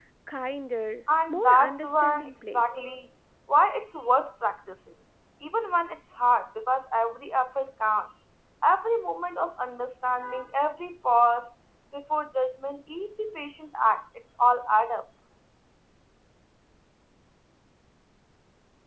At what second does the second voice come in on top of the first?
1.3 s

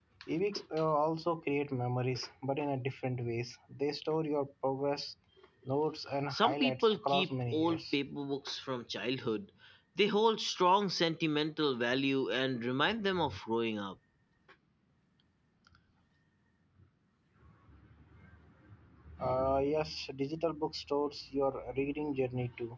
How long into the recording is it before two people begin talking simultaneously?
6.3 s

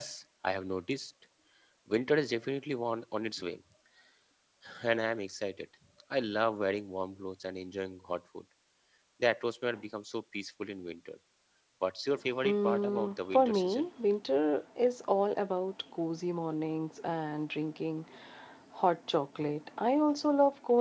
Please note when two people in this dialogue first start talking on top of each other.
12.4 s

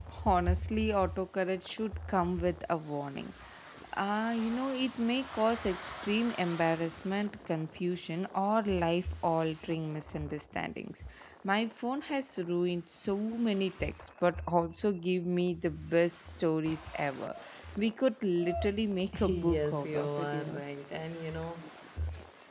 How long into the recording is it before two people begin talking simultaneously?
19.1 s

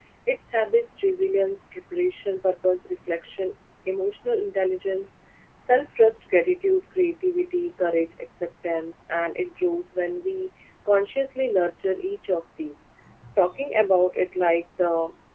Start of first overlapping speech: none

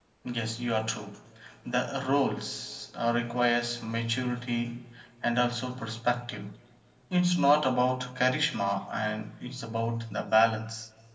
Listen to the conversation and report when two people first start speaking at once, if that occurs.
none

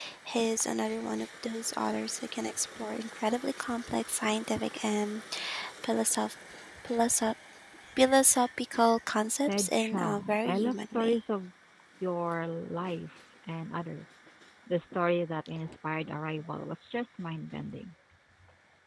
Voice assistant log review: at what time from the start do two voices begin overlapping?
9.5 s

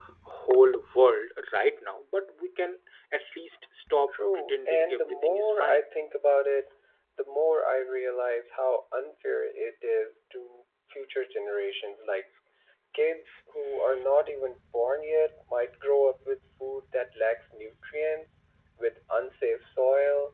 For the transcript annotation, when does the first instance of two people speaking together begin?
4.4 s

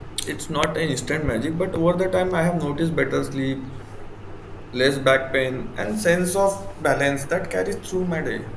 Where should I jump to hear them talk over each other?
none

